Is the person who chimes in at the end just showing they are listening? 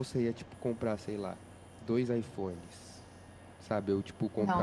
No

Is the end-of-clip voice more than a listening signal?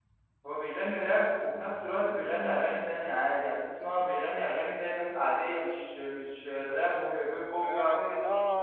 Yes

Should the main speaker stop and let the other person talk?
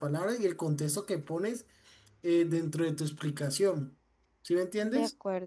Yes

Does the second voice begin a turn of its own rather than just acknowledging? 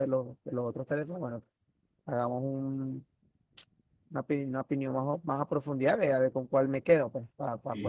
Yes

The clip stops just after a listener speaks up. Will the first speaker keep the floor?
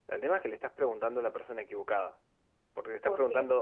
Yes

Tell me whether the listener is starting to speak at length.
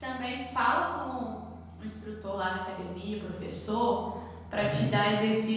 No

